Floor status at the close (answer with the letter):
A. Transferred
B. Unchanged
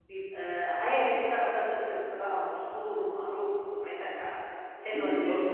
A